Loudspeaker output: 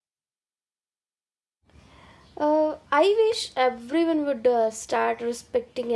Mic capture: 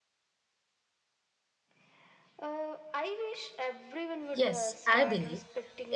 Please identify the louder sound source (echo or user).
user